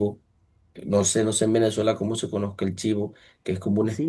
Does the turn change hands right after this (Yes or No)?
Yes